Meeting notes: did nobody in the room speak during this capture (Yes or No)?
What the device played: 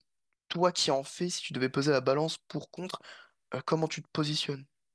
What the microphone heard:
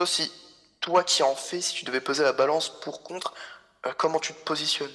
Yes